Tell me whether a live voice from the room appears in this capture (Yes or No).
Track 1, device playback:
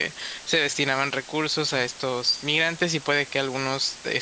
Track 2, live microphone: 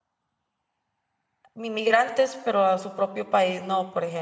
Yes